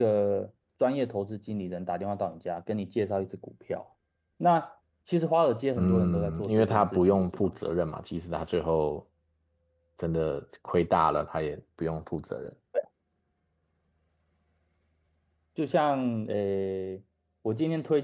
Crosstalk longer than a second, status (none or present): present